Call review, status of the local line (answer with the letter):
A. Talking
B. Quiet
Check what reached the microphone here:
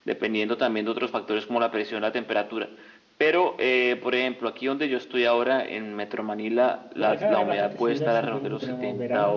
A